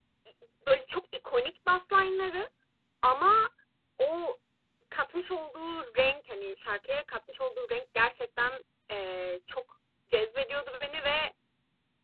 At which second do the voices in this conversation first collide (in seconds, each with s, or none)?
none